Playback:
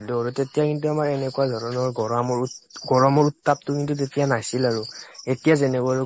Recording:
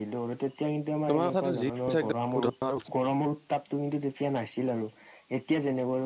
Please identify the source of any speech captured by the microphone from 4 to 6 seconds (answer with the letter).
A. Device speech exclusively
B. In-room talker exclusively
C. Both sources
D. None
A